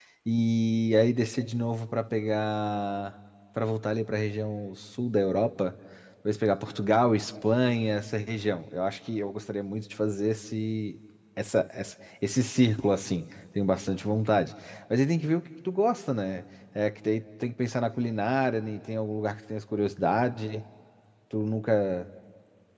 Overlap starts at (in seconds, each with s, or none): none